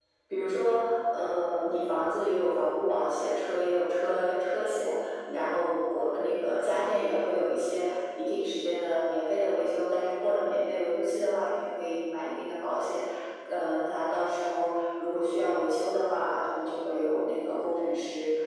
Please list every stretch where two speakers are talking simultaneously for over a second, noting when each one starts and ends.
none

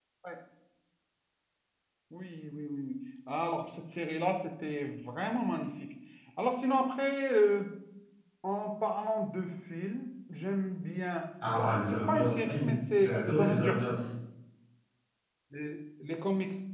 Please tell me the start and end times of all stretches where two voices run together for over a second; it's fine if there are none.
11.6-13.8

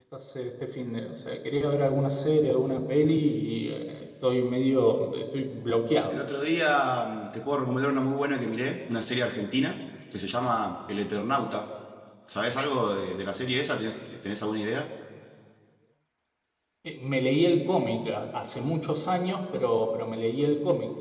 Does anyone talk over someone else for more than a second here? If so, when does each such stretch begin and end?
none

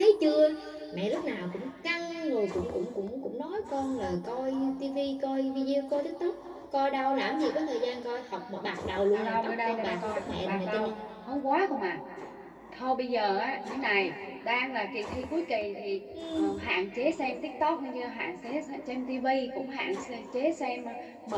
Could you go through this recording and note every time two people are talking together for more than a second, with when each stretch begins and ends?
9.1-10.9

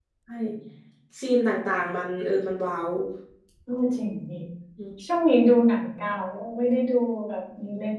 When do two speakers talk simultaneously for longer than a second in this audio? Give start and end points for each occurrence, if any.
none

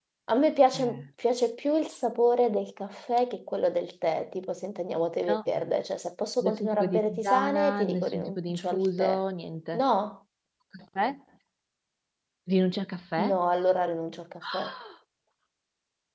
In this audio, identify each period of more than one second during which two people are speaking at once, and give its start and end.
6.4-9.2

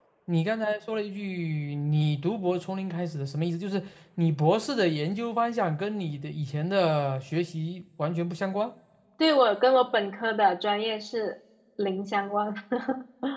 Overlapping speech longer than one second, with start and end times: none

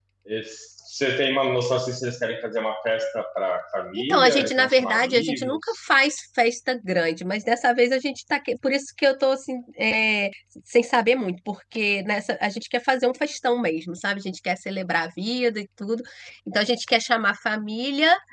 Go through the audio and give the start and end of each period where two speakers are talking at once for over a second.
4.0-5.8

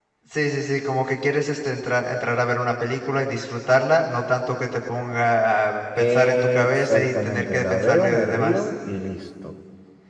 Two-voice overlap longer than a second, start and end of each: 6.0-8.7

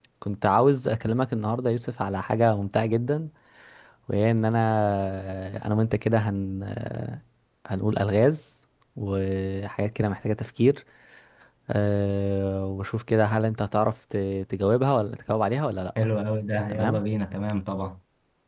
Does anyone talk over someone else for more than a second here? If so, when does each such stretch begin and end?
none

